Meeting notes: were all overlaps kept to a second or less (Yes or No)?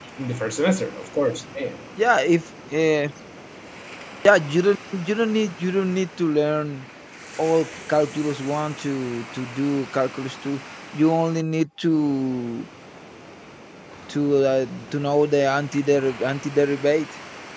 Yes